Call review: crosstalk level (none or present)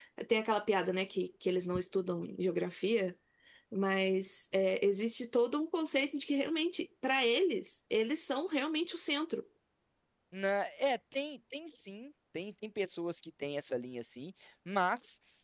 none